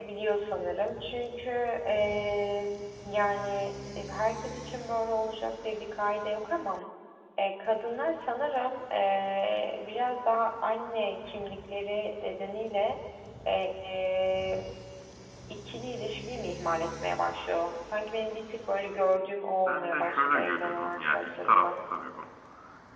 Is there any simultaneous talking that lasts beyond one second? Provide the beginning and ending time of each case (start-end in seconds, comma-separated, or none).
19.7-21.8